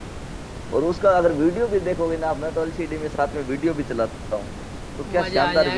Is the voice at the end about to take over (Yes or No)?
Yes